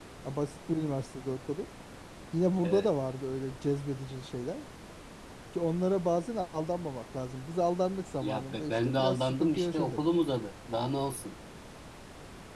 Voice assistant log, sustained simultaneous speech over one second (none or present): present